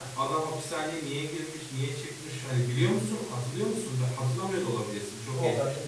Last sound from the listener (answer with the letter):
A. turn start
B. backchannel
A